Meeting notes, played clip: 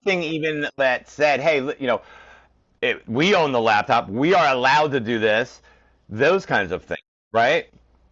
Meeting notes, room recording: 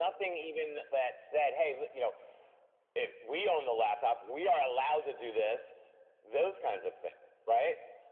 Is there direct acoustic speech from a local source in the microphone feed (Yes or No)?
No